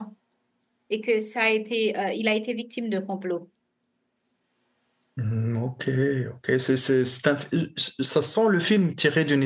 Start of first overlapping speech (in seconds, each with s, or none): none